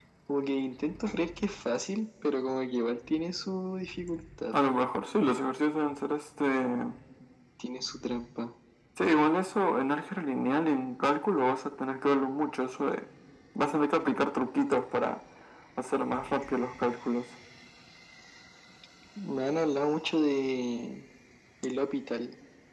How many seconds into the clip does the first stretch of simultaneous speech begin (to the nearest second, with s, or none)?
none